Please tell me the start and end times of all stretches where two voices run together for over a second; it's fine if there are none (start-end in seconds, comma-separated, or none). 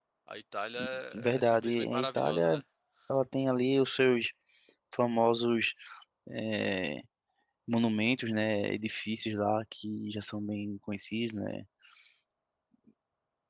1.1-2.6